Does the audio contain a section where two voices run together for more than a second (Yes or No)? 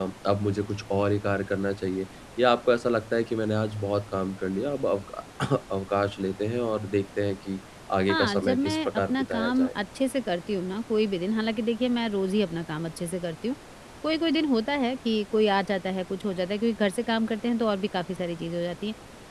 Yes